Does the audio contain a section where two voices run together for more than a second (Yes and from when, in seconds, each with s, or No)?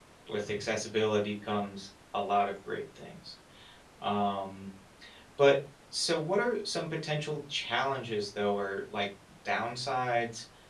No